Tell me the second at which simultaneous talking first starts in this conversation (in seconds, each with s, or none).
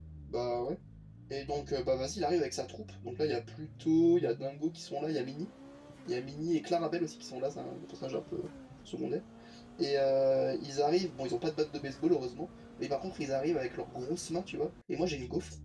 none